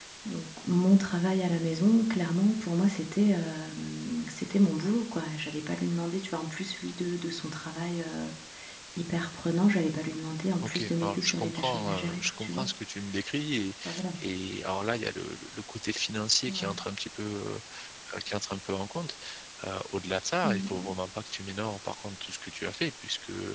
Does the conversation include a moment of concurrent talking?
Yes, from 10.6 s

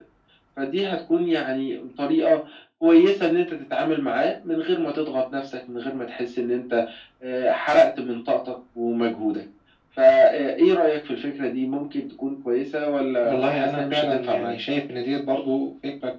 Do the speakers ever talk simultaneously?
Yes, from 13.2 s

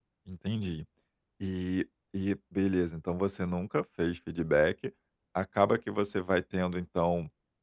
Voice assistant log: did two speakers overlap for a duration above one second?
No

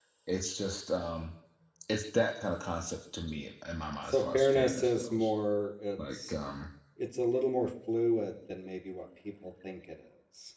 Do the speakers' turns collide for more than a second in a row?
Yes, from 4.0 s

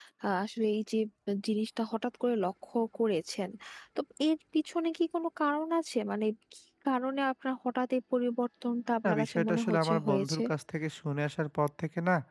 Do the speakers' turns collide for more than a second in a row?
Yes, from 9.0 s

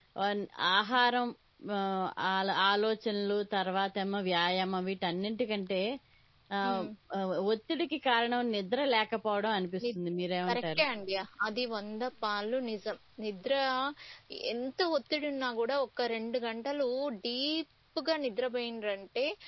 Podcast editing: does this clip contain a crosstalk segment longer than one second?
No

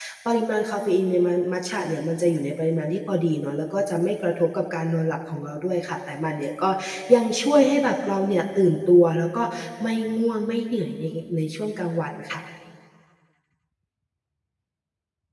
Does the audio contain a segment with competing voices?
No

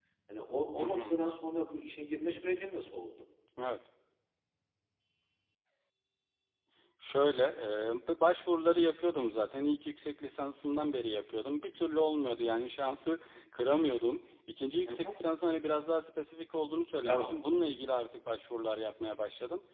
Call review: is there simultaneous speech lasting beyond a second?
No

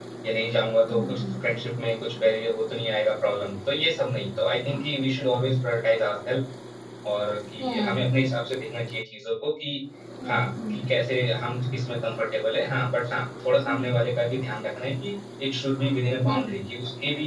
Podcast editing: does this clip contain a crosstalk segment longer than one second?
No

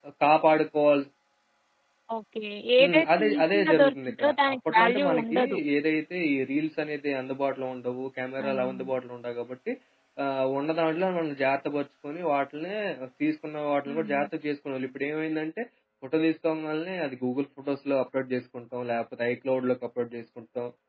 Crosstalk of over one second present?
Yes, from 2.8 s

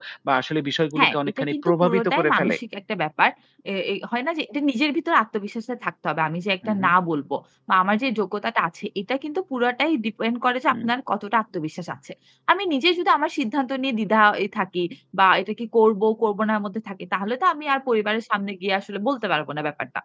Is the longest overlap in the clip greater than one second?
Yes, from 1.0 s

